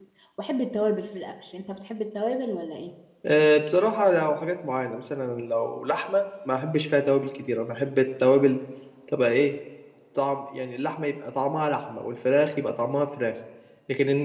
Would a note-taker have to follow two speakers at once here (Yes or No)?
No